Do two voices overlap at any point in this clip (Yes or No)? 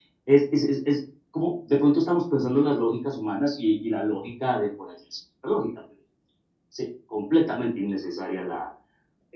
No